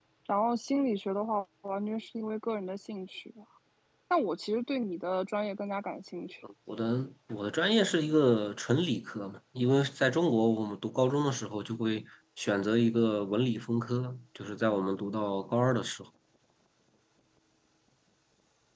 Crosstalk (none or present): none